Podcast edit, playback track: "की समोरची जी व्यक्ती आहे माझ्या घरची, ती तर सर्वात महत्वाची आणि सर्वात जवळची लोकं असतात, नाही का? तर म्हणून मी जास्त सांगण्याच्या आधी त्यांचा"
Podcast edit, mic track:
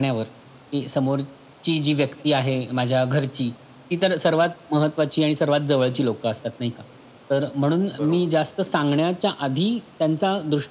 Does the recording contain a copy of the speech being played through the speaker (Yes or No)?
Yes